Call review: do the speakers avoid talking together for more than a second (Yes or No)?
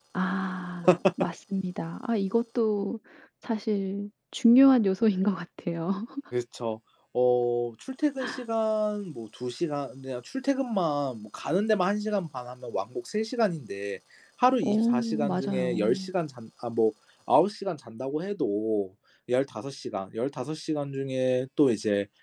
No